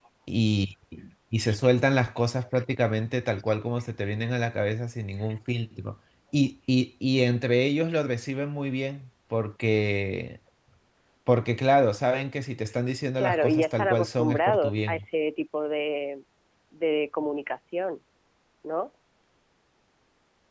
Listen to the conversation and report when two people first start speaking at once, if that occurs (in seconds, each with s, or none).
13.2 s